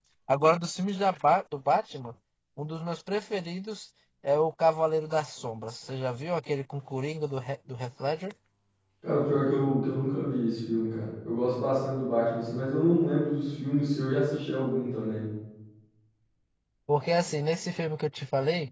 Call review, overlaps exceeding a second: none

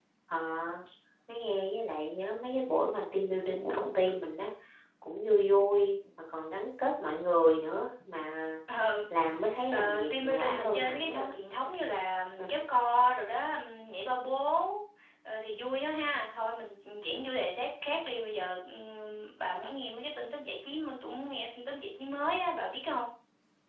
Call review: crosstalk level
present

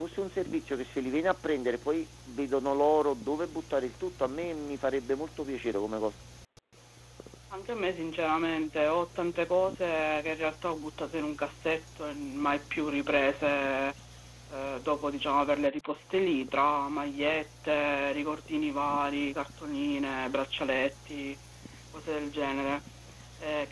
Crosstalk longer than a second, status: none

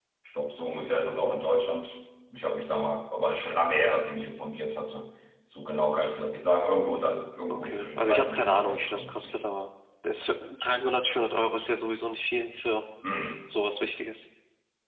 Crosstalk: present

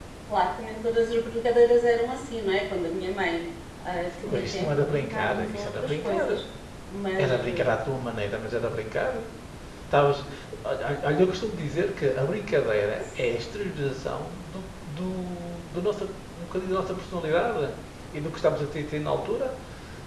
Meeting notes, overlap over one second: present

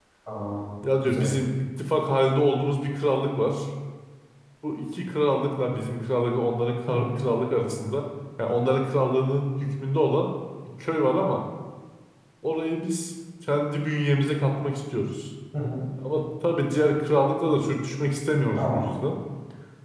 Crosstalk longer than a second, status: none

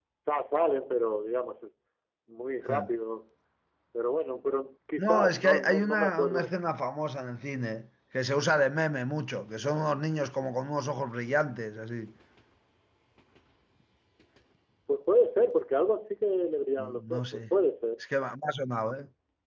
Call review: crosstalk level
present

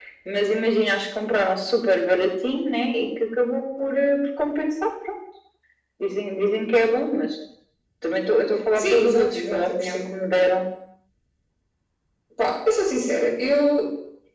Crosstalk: present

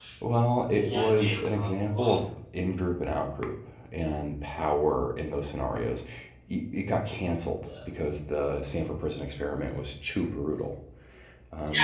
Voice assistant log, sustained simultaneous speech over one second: present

